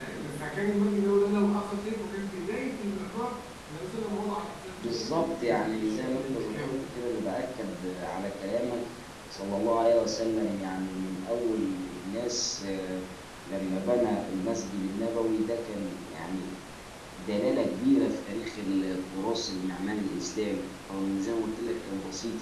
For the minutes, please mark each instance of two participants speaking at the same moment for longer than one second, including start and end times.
4.8-6.7

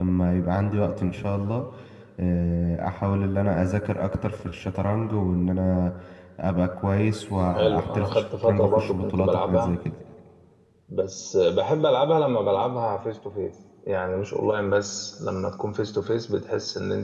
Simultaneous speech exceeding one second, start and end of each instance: 7.5-9.8

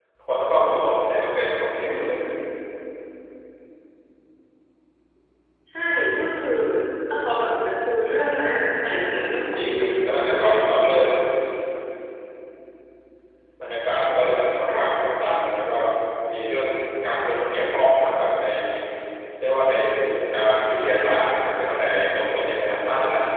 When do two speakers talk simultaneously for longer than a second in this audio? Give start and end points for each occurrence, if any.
9.1-10.6

